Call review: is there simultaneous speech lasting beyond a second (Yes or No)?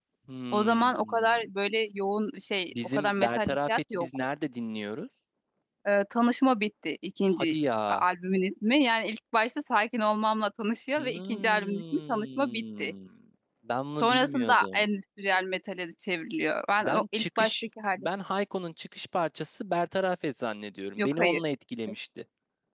Yes